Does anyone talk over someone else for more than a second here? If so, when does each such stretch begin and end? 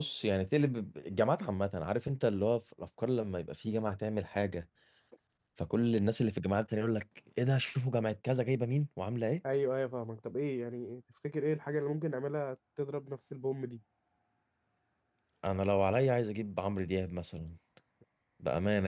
none

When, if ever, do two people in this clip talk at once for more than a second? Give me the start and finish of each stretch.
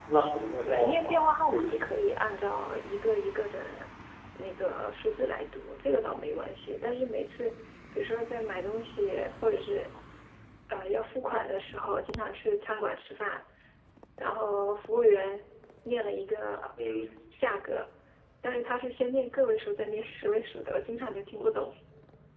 0.6-2.1

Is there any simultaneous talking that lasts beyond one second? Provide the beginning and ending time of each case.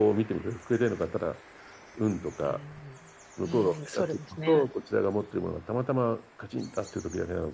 3.4-4.6

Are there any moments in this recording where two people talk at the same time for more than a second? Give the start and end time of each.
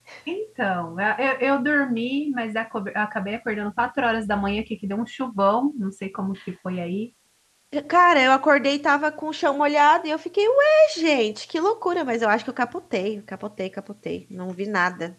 none

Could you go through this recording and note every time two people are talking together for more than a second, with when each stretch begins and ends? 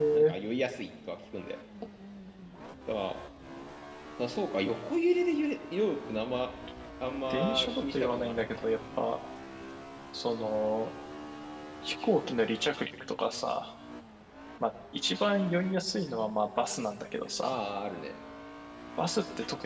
7.3-8.6

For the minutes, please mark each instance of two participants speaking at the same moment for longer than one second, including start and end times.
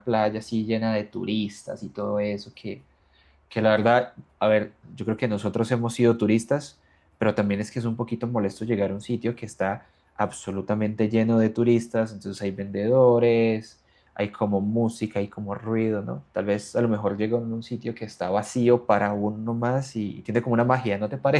none

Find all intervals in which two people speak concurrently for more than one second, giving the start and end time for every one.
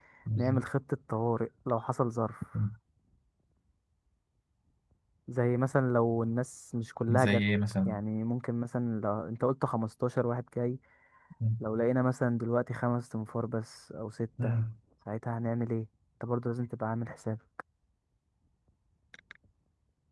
none

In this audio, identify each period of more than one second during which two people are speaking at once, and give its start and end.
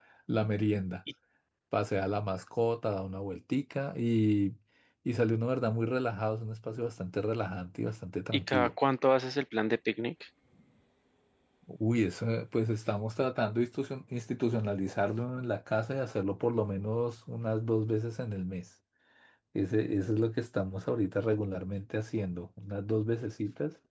none

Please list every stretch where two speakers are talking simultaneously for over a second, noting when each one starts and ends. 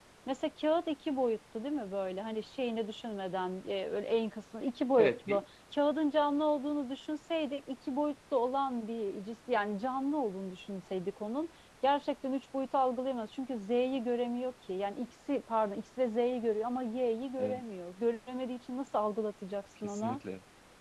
none

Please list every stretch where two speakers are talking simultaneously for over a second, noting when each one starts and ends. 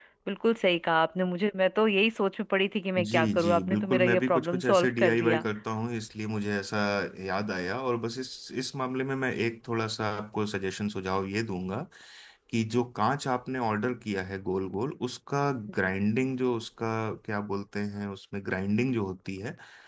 3.0-5.4

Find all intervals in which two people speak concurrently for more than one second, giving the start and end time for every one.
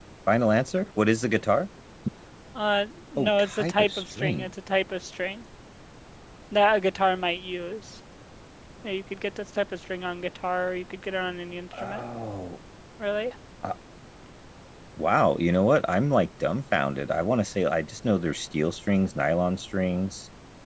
3.2-4.5

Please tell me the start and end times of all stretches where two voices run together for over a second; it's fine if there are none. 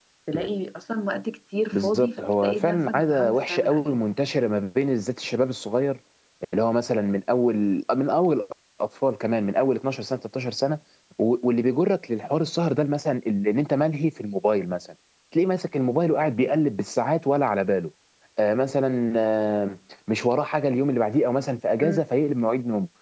1.7-3.9

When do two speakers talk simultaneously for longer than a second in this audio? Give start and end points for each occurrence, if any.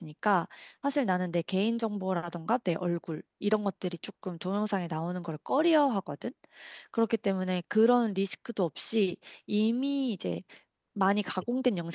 none

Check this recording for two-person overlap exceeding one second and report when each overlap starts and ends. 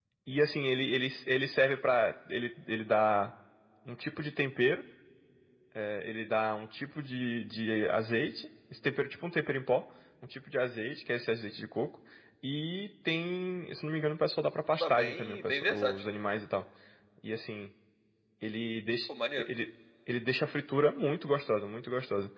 14.8-16.0

